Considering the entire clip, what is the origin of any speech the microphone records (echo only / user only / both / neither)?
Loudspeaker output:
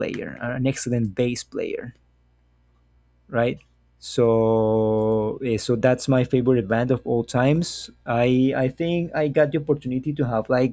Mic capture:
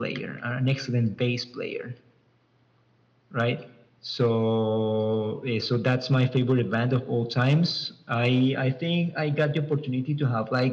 echo only